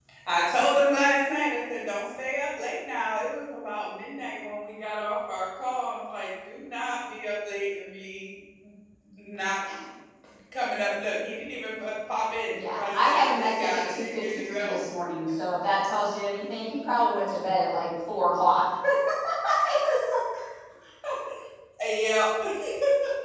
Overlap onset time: 12.6 s

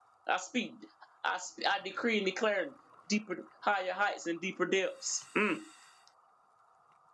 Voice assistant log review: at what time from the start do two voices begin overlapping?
none

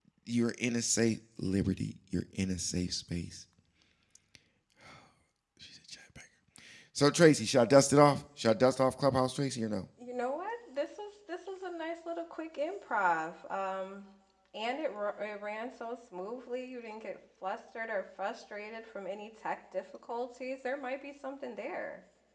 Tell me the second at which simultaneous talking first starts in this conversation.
none

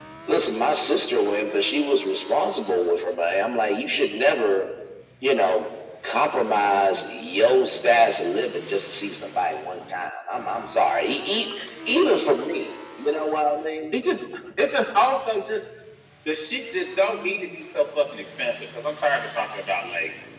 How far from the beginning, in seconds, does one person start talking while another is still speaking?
none

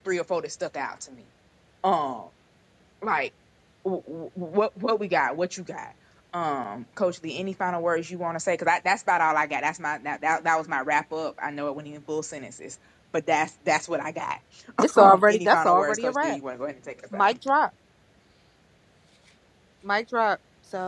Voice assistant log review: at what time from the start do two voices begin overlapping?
15.0 s

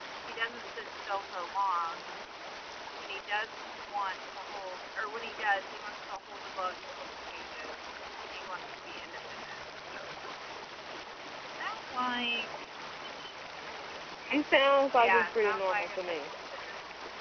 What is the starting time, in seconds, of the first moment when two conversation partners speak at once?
14.9 s

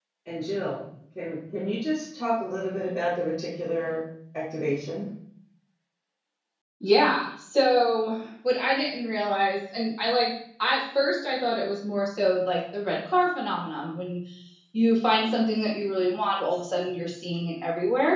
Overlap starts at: none

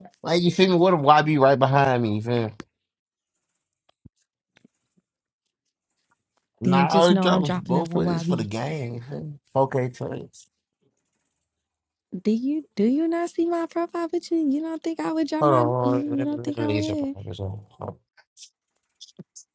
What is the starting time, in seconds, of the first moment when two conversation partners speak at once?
6.6 s

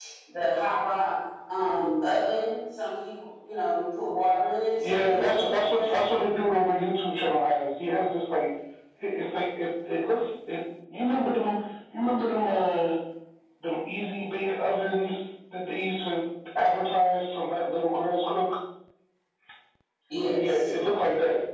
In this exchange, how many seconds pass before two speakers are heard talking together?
4.8 s

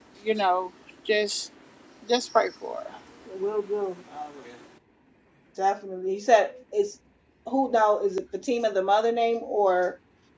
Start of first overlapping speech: none

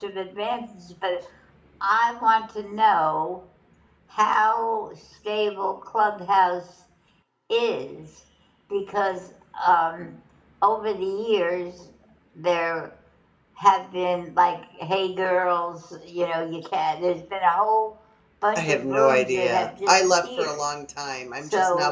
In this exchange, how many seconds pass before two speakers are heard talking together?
18.6 s

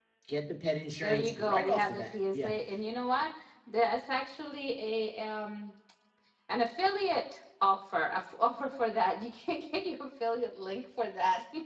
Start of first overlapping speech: 1.0 s

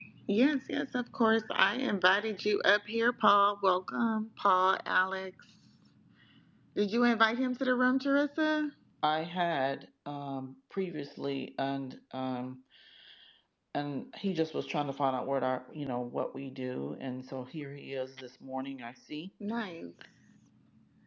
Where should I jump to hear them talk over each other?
none

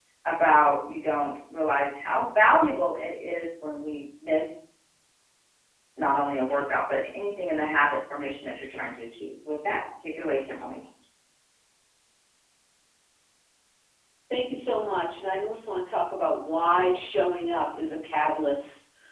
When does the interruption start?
none

